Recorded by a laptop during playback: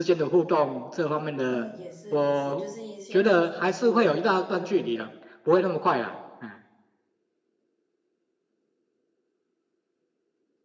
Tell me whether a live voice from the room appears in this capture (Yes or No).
Yes